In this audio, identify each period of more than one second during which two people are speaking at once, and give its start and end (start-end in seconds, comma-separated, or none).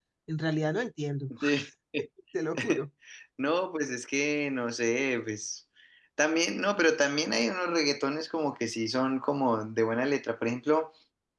none